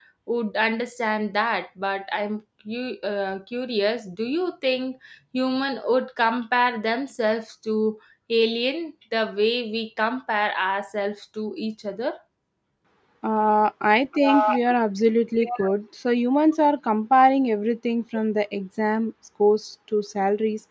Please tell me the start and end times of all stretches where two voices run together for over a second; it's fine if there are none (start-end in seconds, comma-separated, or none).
none